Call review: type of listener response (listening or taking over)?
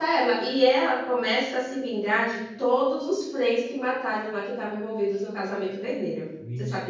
taking over